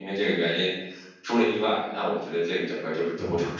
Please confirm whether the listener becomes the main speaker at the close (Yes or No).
Yes